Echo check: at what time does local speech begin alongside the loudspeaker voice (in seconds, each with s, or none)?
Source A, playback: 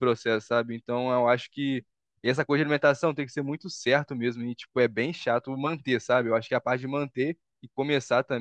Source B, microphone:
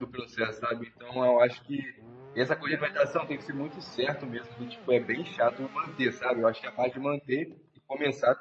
none